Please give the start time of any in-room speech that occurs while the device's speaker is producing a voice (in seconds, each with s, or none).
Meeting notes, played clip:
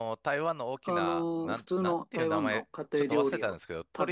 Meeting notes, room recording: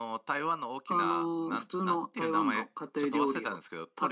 none